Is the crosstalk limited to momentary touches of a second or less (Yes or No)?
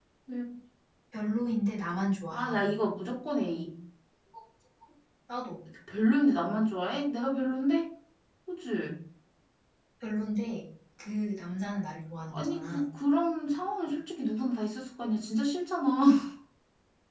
Yes